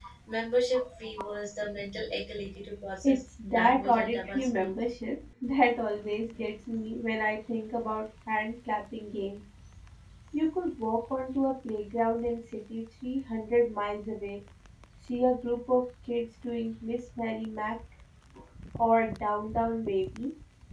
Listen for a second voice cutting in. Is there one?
Yes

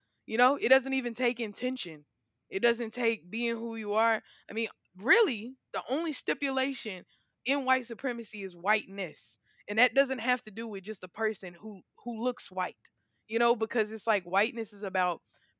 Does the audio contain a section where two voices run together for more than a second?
No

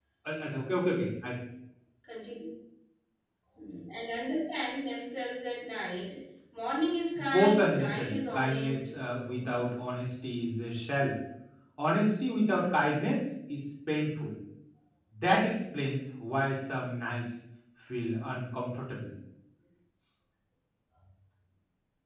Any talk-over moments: Yes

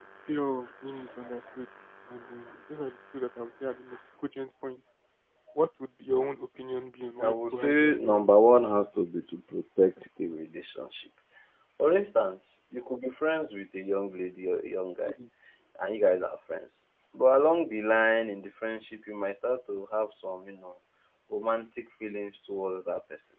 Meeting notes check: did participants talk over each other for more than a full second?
Yes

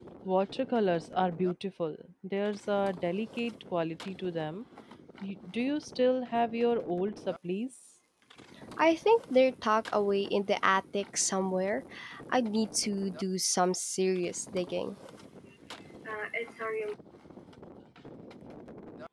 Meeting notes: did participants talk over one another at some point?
No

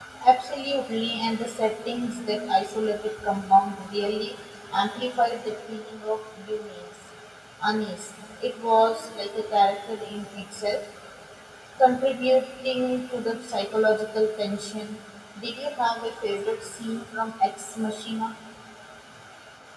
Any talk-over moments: No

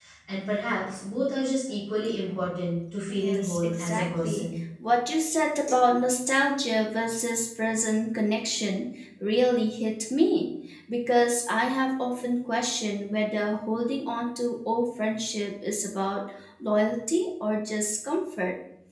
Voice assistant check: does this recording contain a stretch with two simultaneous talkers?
Yes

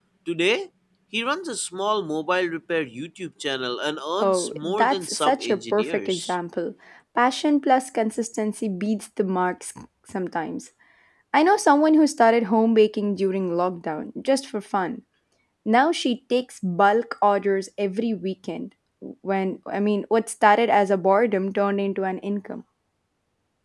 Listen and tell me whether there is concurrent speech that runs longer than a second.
Yes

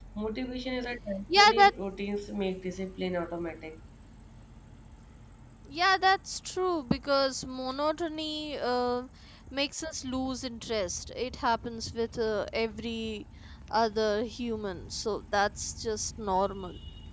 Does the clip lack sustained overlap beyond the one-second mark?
Yes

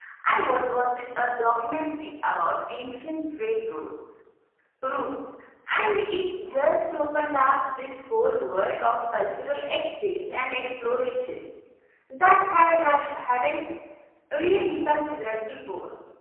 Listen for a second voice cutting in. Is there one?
No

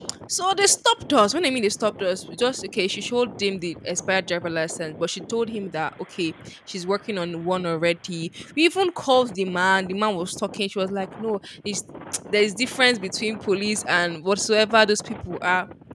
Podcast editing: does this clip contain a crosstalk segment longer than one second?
No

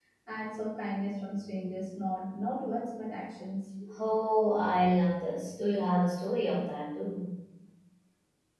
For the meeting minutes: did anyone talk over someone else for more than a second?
No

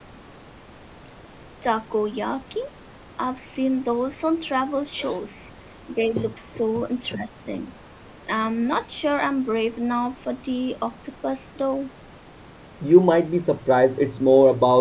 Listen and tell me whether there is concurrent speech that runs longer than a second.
No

